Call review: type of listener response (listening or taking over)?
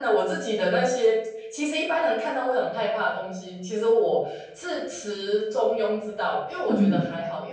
listening